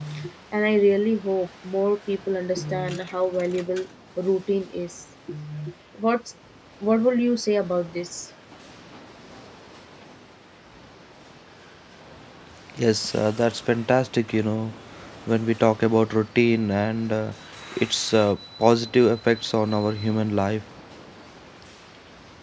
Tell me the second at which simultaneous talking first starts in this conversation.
none

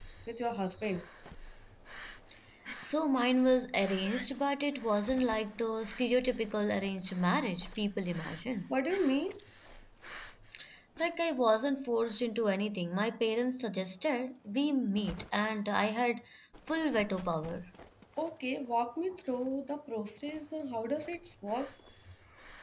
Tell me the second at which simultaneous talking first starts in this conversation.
none

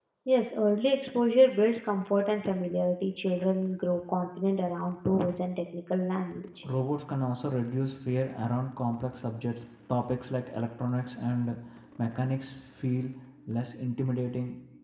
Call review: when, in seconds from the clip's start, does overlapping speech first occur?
none

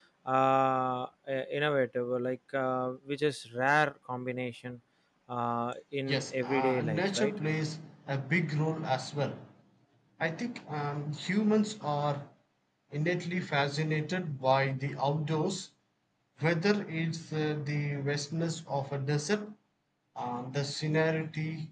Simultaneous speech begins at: 6.1 s

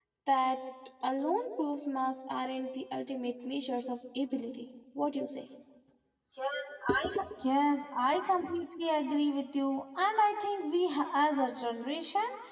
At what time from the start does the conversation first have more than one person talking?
none

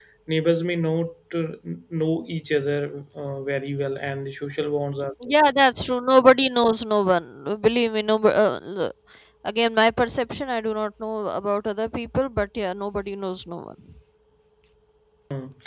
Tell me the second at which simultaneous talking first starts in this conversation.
none

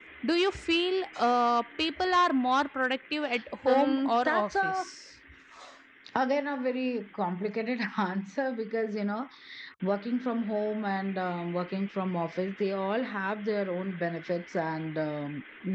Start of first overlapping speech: 3.6 s

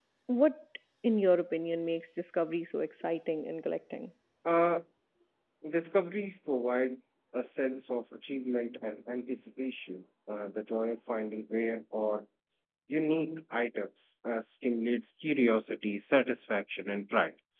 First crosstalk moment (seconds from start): none

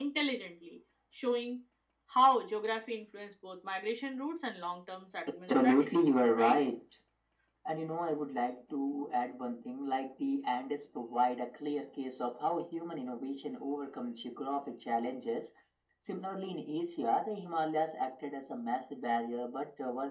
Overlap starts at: 5.3 s

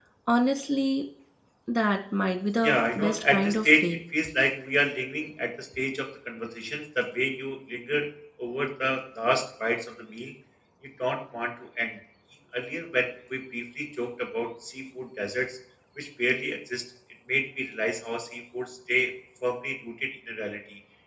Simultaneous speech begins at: 2.6 s

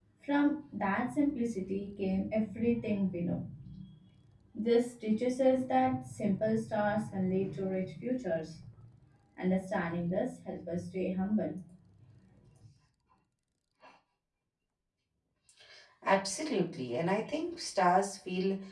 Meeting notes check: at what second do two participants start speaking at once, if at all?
none

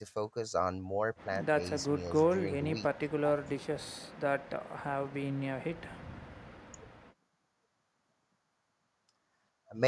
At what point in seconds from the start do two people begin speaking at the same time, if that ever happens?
1.2 s

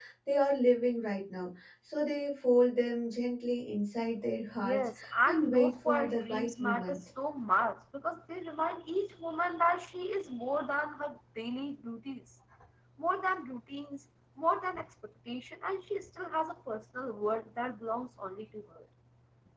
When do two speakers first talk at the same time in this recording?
4.6 s

